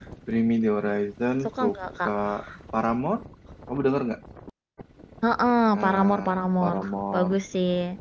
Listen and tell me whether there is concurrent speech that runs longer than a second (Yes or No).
Yes